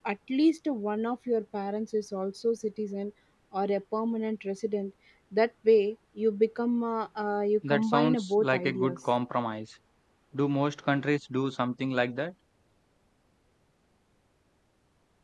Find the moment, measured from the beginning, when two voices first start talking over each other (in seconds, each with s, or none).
7.6 s